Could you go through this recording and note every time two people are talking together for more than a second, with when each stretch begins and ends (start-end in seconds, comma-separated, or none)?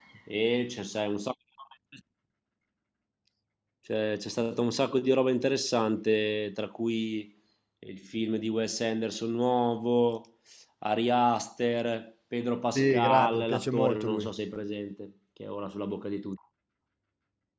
12.7-14.3